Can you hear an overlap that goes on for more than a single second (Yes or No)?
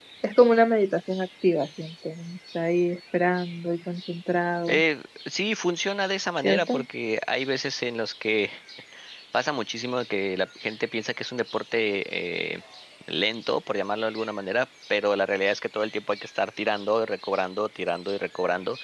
No